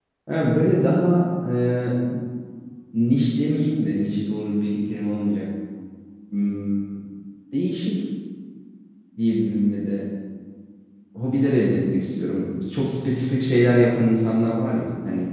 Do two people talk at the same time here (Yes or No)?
No